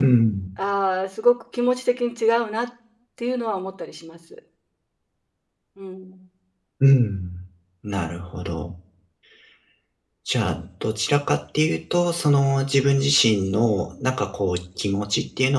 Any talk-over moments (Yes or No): No